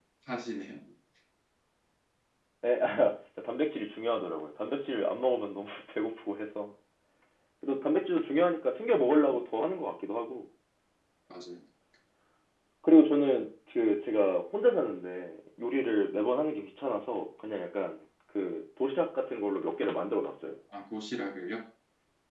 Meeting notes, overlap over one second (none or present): none